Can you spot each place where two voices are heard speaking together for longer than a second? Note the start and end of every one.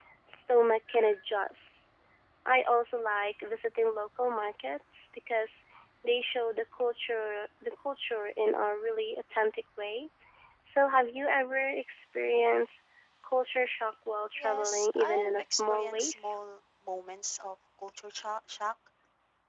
14.4-16.4

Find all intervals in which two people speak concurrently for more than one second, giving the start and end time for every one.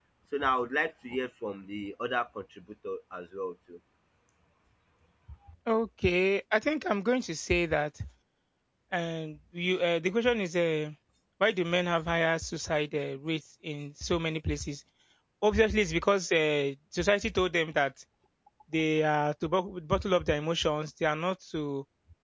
none

